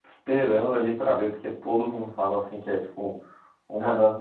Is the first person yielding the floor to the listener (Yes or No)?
No